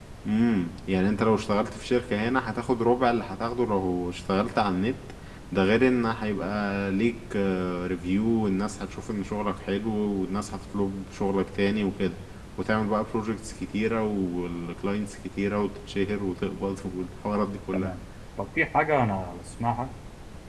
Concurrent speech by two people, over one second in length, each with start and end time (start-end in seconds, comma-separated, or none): none